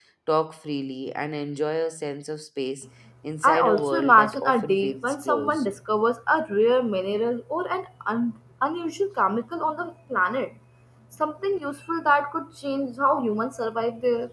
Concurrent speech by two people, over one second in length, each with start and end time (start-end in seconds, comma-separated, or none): 3.4-5.6